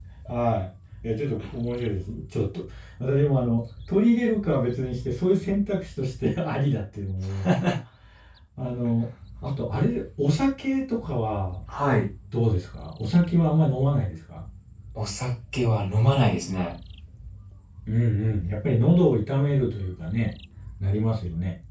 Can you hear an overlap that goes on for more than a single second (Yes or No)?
No